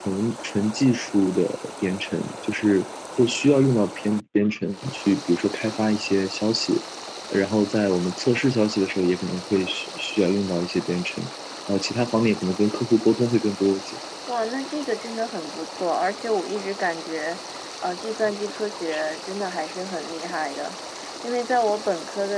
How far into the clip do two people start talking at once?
none

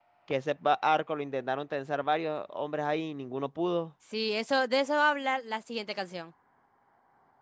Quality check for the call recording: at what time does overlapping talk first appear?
none

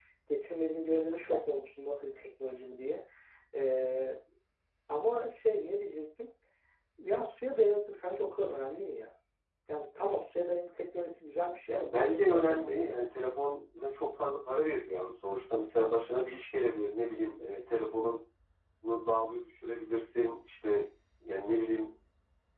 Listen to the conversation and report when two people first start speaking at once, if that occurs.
11.7 s

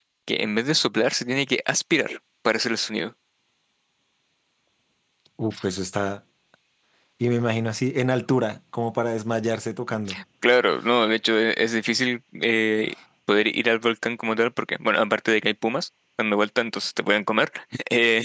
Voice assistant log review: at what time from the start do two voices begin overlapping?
none

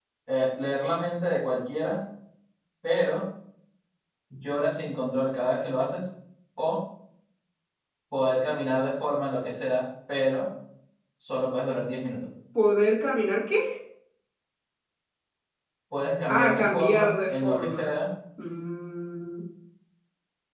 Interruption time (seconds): 16.3 s

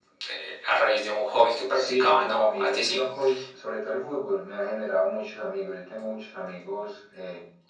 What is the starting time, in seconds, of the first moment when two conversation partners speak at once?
1.7 s

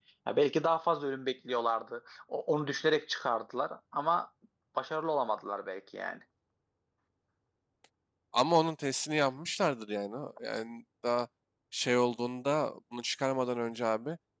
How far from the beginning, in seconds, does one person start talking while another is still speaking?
none

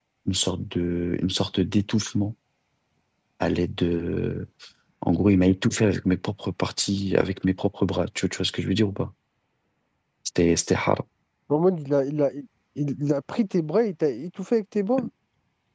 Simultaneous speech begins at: none

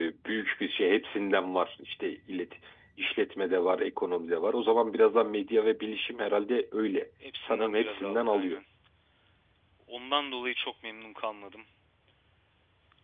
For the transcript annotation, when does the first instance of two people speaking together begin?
7.2 s

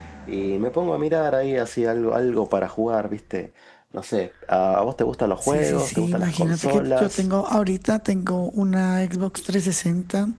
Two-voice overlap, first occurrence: 5.4 s

